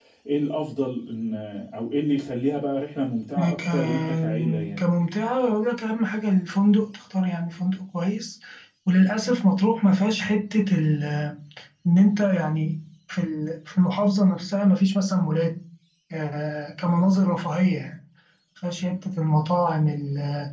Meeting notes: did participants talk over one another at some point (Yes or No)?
Yes